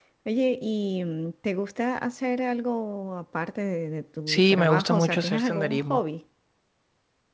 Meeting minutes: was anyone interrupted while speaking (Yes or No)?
Yes